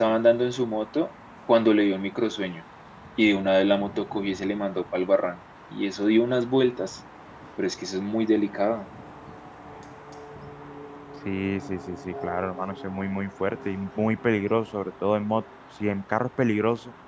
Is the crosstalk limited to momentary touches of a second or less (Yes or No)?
Yes